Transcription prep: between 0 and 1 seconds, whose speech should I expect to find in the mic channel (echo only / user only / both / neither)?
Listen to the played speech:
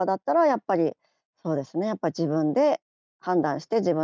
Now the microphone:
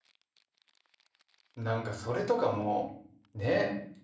neither